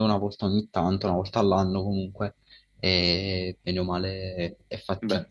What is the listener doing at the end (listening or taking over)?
taking over